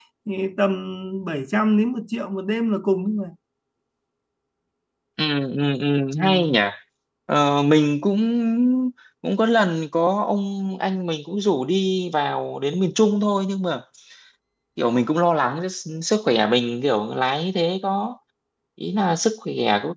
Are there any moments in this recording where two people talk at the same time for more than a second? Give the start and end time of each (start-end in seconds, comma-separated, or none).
none